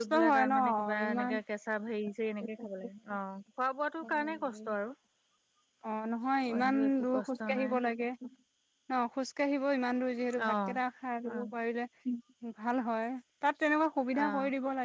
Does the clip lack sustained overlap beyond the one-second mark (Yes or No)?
No